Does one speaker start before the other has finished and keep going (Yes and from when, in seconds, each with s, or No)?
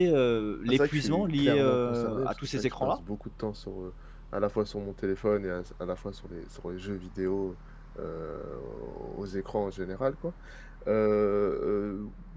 Yes, from 0.7 s